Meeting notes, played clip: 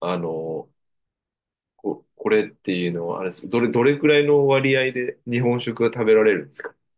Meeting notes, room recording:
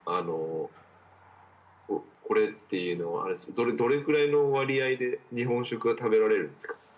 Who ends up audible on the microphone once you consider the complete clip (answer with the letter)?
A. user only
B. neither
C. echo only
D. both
C